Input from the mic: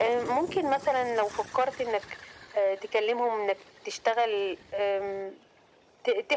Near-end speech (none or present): none